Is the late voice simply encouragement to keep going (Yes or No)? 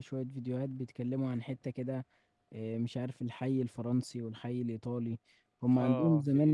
Yes